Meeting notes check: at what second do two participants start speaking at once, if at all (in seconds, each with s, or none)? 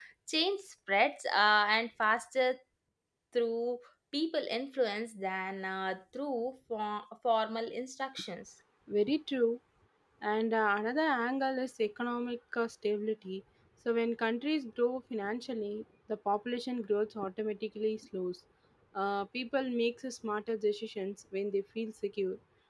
none